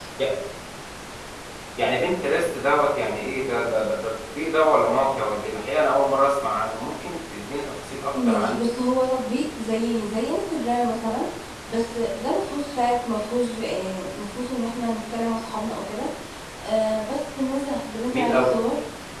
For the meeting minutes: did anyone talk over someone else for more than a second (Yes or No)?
No